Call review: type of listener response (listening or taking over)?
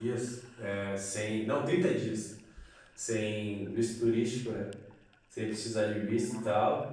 listening